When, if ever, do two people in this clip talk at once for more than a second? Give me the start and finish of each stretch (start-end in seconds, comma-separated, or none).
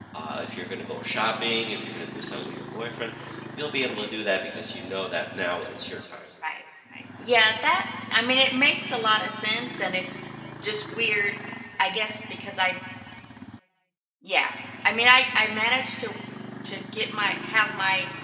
none